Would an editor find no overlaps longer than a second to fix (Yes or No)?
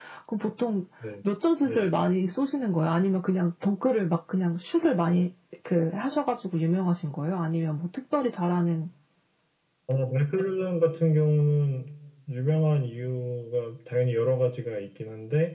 Yes